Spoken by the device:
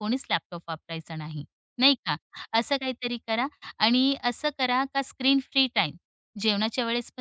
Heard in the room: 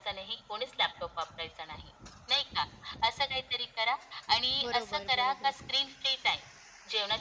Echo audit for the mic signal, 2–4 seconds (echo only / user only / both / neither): echo only